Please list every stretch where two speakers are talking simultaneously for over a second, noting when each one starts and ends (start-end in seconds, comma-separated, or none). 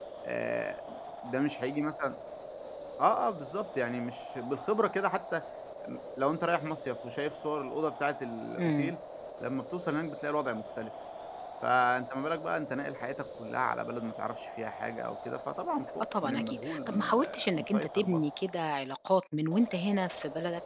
16.0-18.2